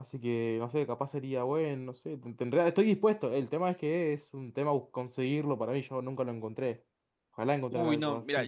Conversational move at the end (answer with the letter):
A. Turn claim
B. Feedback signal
A